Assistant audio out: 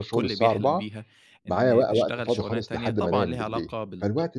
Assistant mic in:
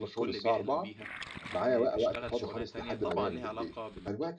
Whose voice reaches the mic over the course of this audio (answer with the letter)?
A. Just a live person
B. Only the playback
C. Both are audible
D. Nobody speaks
B